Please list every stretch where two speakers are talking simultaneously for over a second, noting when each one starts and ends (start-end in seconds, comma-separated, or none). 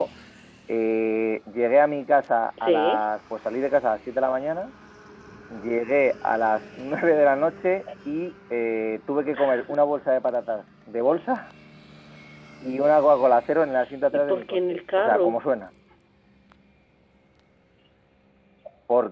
14.1-15.4